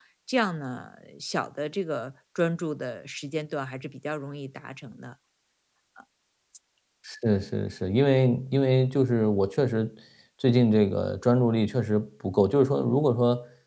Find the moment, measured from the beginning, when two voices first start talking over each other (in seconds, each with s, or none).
none